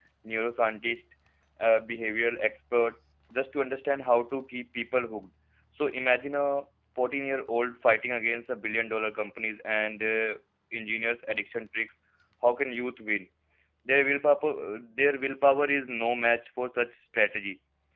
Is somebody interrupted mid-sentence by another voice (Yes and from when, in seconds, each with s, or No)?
No